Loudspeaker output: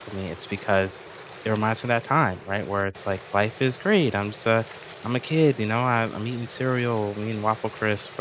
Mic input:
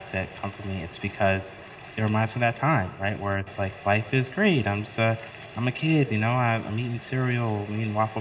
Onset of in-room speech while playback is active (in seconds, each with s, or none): none